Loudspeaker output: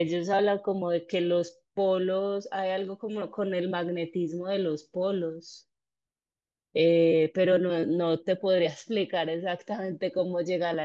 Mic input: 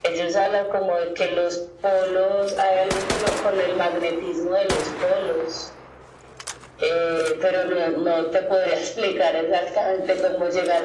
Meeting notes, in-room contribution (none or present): none